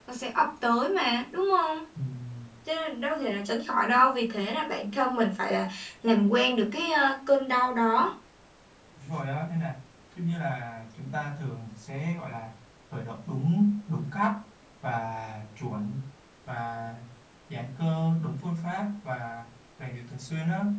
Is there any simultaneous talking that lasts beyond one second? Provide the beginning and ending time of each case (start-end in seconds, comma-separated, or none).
none